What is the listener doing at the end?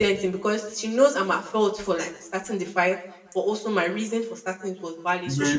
listening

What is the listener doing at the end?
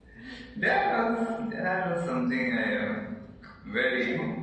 listening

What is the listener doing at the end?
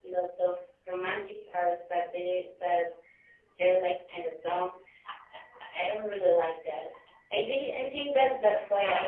listening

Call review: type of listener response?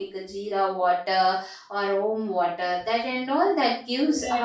taking over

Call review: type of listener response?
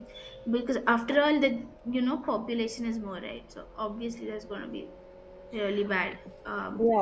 taking over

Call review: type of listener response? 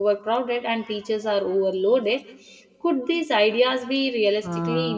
taking over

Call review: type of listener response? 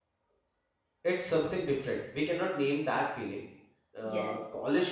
listening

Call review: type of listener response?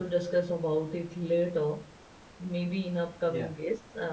listening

